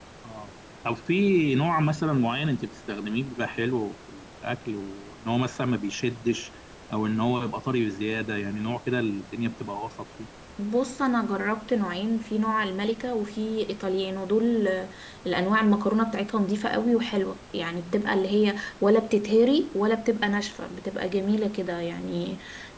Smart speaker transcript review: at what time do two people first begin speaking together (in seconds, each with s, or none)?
none